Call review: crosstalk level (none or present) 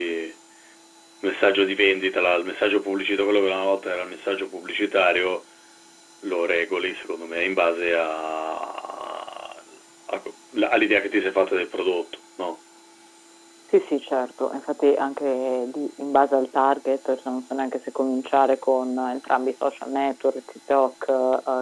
none